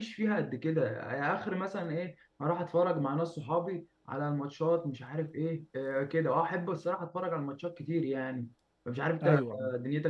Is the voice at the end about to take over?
No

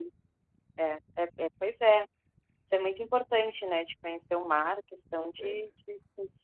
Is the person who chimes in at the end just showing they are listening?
Yes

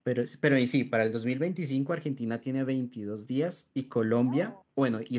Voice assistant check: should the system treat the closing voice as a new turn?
No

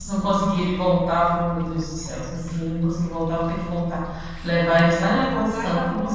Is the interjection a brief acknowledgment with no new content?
No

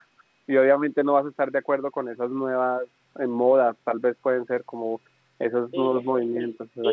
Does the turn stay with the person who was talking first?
No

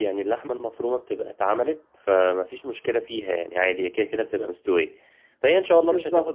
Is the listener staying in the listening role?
Yes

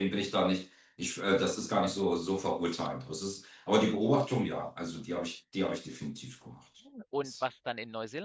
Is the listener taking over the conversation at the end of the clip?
Yes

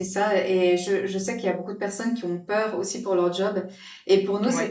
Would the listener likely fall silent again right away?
Yes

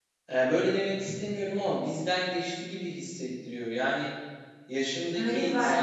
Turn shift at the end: No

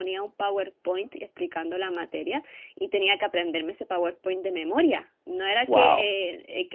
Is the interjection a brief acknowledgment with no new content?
Yes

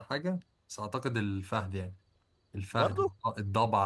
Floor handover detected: No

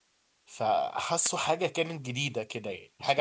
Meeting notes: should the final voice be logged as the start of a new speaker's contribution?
No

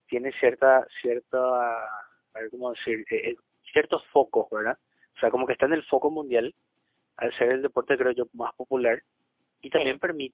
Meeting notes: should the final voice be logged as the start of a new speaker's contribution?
No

